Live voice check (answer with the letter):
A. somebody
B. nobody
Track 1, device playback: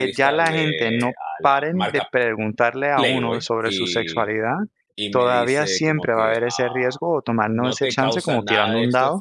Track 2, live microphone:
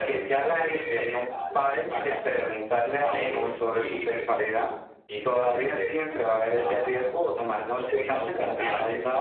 B